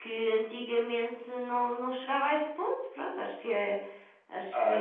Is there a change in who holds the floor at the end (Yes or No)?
Yes